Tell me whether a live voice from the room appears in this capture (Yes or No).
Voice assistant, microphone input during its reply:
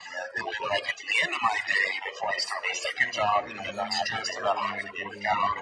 Yes